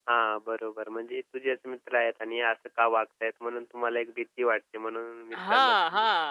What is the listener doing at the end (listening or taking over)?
taking over